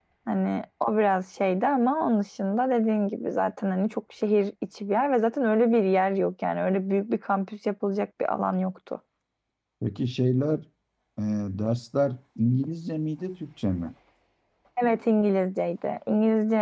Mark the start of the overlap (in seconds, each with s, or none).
none